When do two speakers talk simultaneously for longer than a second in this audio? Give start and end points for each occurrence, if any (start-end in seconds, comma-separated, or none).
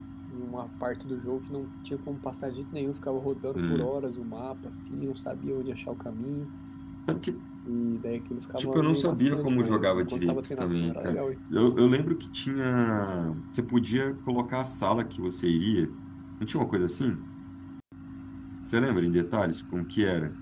8.6-11.2